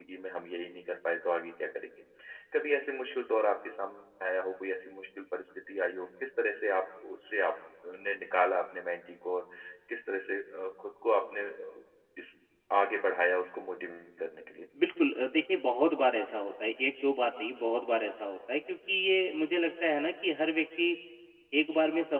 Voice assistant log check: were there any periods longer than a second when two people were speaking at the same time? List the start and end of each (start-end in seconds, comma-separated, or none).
none